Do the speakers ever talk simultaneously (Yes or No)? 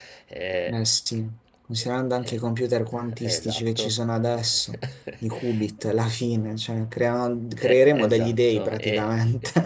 Yes